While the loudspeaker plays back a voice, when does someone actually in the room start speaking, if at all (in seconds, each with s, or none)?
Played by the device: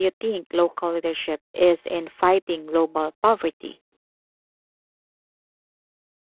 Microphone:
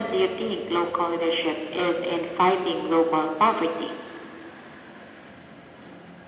none